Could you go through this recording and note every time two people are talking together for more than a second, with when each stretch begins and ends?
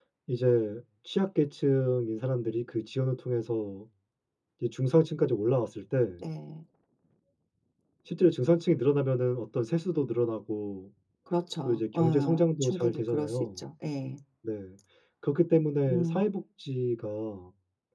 11.7-13.6

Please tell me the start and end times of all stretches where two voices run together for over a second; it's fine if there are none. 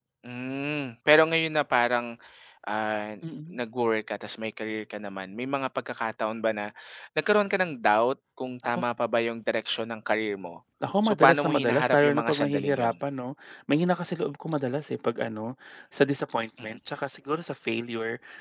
11.0-12.9

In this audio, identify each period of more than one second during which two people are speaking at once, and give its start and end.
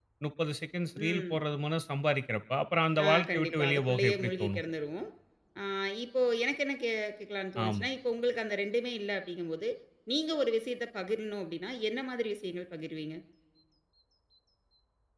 3.1-4.6

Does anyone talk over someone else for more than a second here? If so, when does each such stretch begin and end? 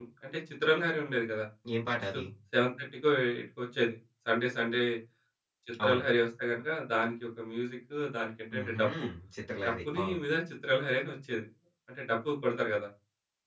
none

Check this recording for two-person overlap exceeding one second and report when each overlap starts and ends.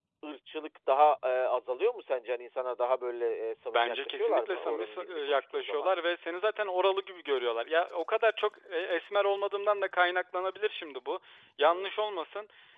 3.7-5.9

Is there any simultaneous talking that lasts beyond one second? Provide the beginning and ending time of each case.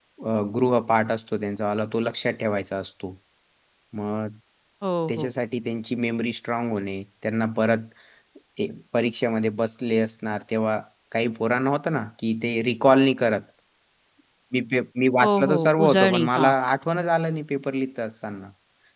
15.2-16.5

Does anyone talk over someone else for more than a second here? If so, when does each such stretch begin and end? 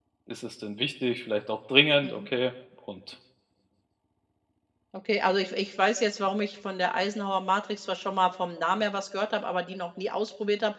none

